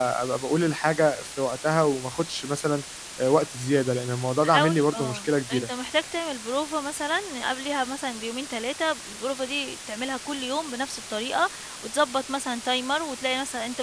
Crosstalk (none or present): present